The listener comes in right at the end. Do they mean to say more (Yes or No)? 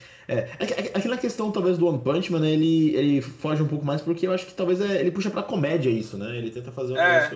No